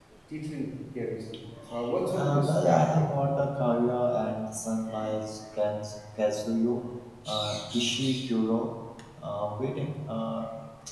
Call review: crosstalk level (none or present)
present